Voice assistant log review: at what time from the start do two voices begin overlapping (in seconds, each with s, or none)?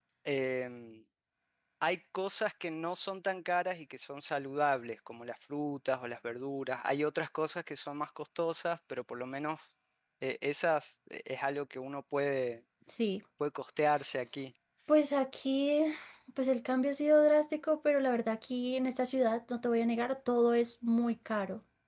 none